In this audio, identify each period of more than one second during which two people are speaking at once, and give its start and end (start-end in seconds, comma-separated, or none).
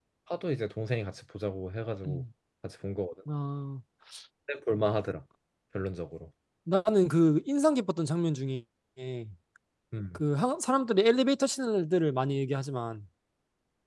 none